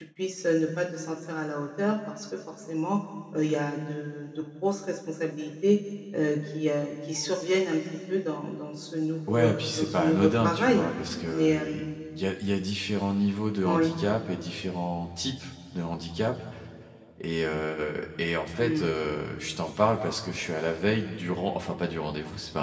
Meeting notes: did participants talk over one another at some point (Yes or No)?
Yes